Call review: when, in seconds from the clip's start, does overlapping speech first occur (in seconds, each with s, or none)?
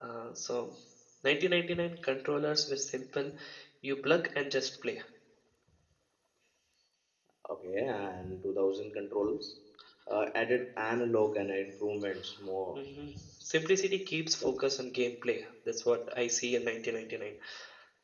none